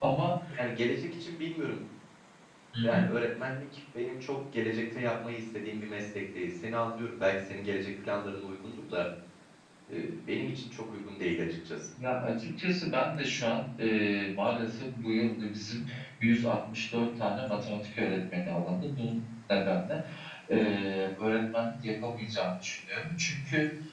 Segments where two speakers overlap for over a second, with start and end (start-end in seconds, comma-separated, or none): none